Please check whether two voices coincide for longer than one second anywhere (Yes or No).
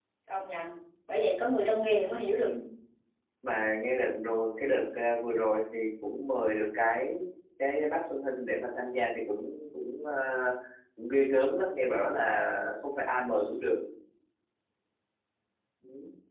No